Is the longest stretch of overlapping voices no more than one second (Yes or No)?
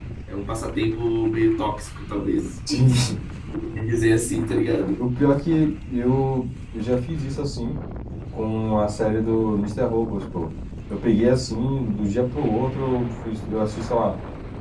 Yes